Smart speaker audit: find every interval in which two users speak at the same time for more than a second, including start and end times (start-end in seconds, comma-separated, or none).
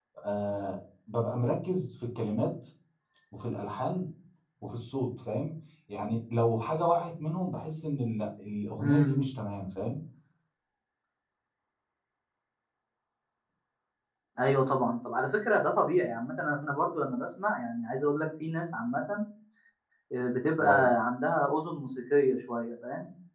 none